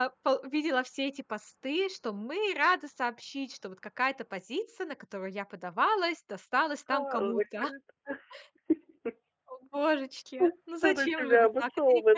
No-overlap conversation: No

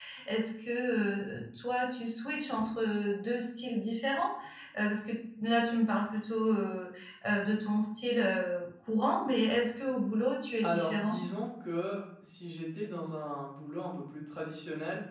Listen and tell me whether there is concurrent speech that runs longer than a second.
No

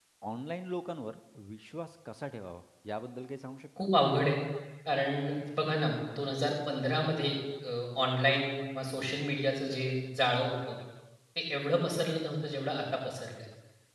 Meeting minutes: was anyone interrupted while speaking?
No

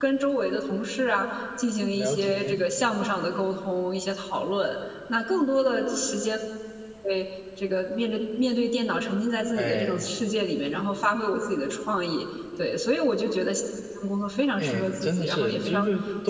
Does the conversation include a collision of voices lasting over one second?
Yes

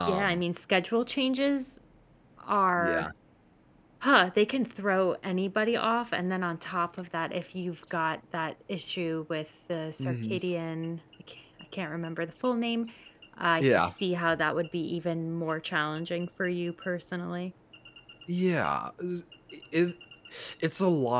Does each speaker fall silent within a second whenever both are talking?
Yes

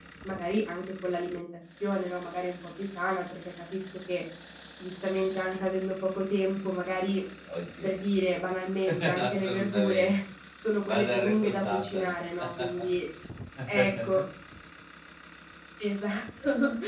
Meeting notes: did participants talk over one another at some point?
Yes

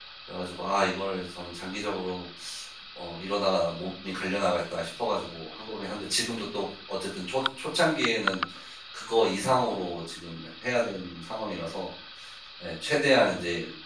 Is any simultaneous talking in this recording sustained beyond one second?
No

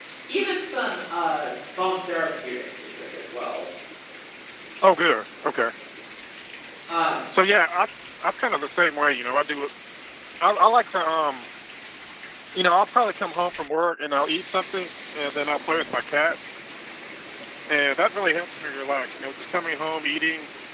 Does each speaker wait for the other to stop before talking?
Yes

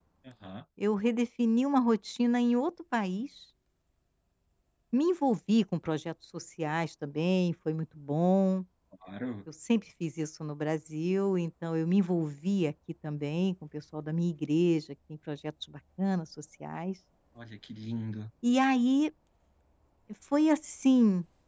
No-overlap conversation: Yes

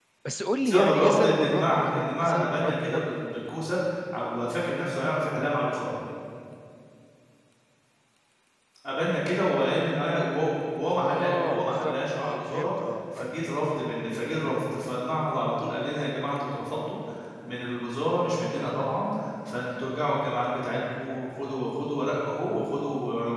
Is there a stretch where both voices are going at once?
Yes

